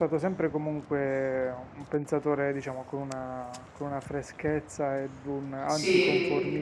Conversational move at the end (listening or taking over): listening